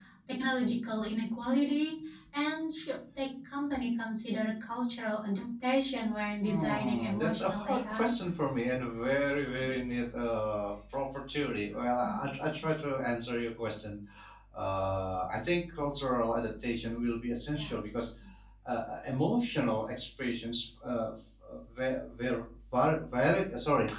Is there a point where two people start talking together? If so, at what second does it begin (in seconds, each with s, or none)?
6.4 s